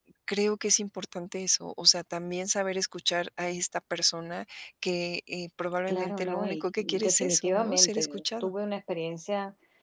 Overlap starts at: 5.9 s

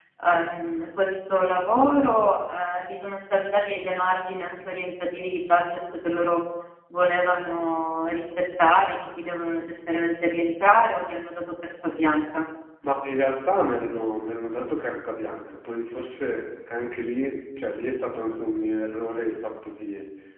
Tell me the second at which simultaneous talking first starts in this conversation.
none

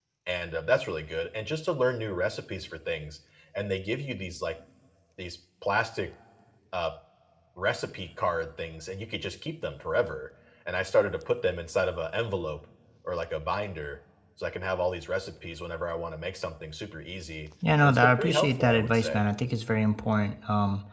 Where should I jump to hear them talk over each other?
17.6 s

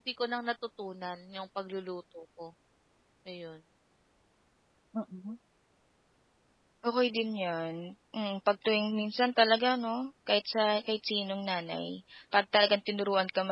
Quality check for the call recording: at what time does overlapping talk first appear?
none

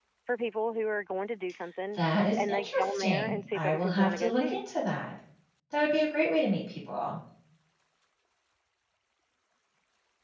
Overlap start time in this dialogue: 2.4 s

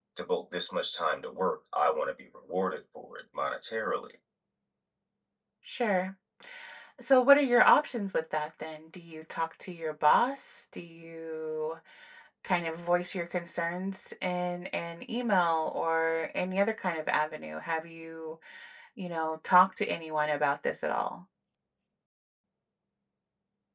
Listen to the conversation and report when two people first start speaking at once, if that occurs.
none

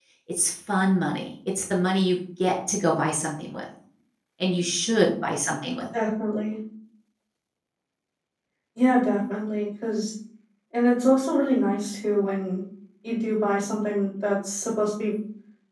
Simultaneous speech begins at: none

